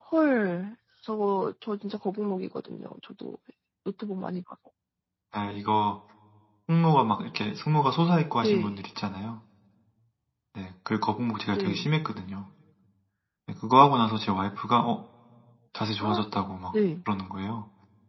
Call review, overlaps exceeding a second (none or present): none